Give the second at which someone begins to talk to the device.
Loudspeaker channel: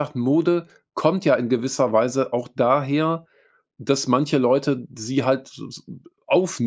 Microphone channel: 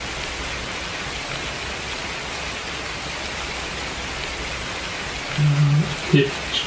5.4 s

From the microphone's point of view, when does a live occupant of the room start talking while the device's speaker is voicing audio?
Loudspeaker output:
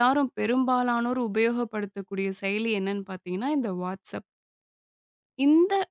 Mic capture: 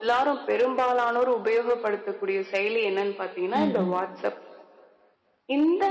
3.5 s

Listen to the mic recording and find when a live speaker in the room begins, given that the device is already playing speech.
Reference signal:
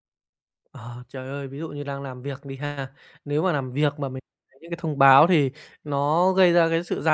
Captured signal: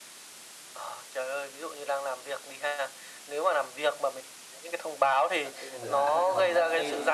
5.4 s

